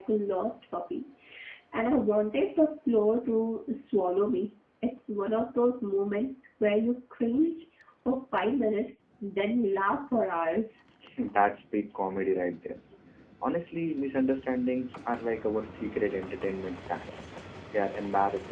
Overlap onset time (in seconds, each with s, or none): none